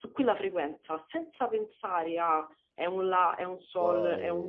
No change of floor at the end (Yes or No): Yes